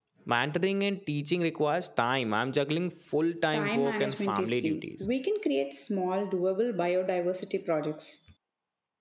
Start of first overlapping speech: 3.5 s

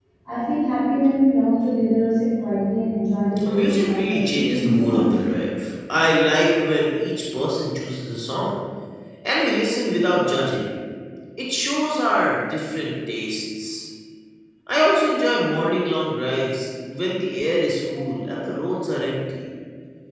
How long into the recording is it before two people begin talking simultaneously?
3.4 s

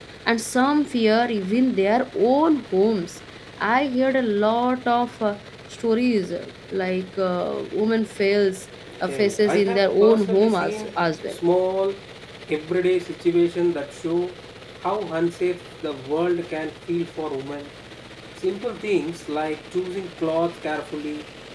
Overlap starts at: 9.0 s

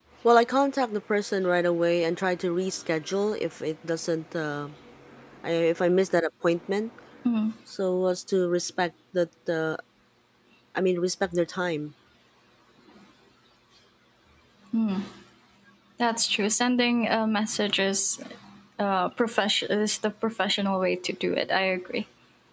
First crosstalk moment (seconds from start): none

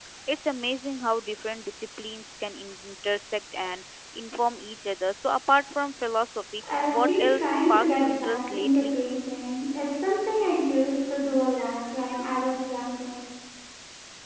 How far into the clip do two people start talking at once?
6.9 s

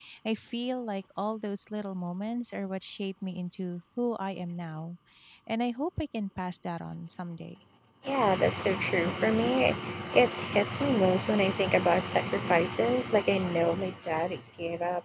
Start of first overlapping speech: none

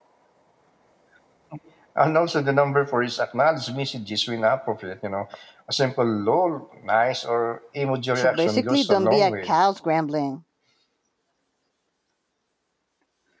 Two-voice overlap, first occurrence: 8.2 s

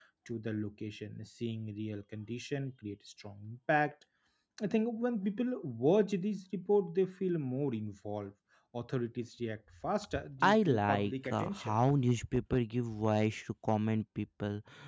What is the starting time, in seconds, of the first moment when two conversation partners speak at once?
10.4 s

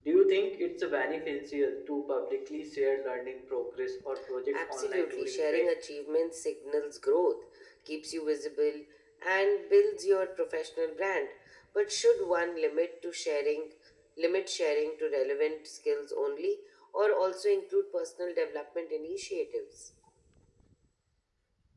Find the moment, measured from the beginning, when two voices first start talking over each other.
4.5 s

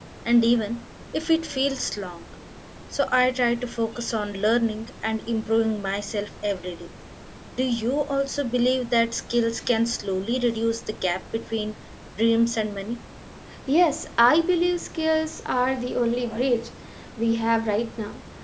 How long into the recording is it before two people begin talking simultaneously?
none

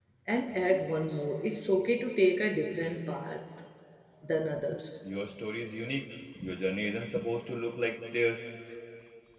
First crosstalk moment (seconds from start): none

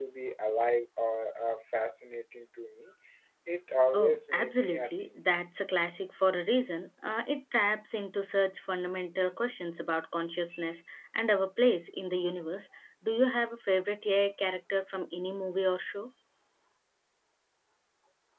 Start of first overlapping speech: 3.9 s

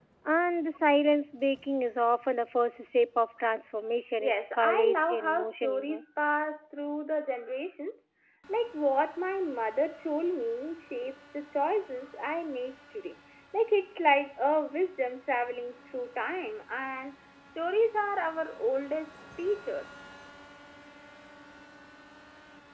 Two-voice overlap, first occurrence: 4.2 s

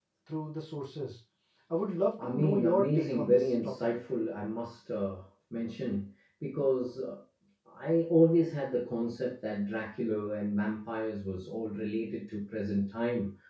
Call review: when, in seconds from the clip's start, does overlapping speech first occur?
2.2 s

